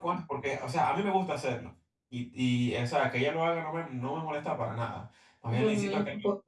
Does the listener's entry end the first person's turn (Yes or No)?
Yes